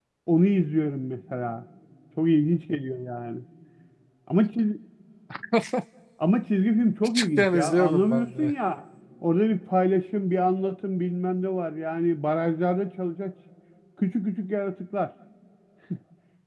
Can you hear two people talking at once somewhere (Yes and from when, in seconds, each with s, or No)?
Yes, from 7.2 s